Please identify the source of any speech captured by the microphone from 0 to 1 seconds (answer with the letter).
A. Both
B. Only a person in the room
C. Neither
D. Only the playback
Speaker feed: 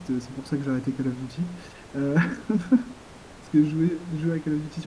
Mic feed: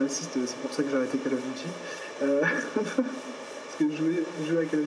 D